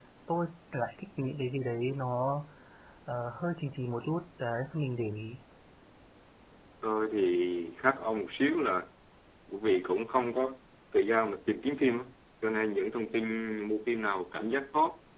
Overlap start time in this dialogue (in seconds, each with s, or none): none